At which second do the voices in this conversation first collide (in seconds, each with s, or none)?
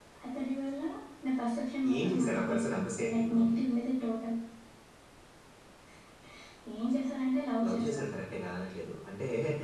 2.0 s